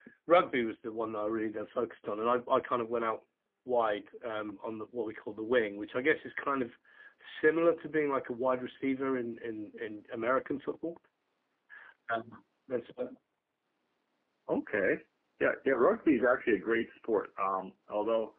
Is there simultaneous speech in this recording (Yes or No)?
No